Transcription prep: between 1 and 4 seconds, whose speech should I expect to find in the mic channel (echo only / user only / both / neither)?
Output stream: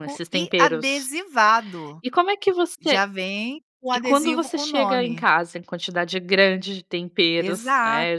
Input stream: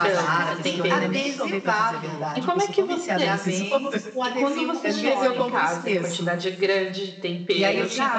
both